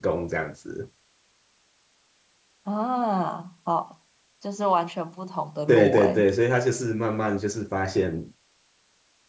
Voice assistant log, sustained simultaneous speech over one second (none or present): none